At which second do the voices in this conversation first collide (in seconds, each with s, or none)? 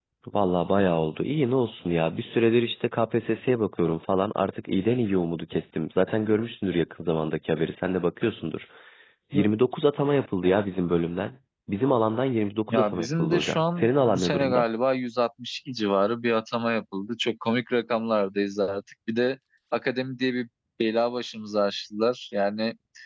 12.7 s